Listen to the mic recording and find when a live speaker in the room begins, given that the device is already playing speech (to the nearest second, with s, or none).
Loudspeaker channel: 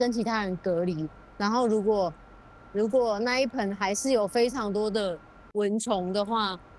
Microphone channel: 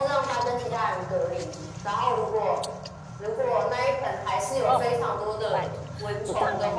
5 s